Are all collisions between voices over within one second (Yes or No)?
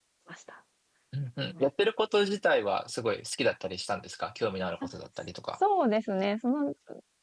Yes